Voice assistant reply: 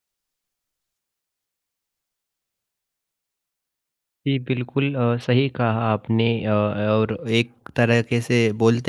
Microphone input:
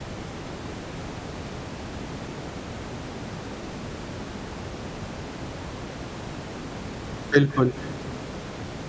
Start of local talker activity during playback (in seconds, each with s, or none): 7.3 s